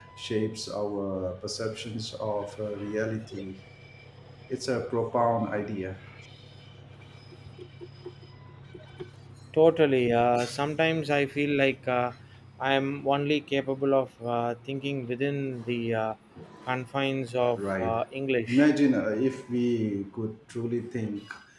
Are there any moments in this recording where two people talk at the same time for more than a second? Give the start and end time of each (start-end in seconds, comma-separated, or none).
none